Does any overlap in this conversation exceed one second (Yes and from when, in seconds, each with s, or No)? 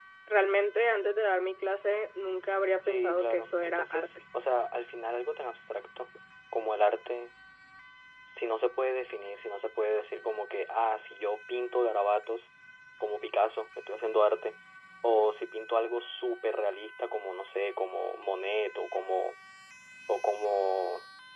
Yes, from 2.8 s